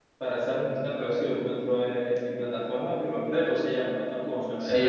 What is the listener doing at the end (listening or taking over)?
taking over